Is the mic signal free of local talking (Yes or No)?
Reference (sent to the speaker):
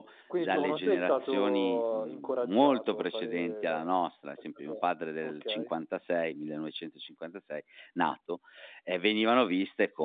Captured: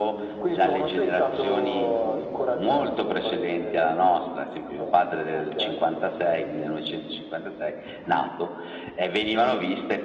Yes